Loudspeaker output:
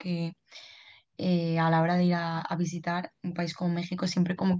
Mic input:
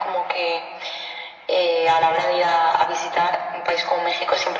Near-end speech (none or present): none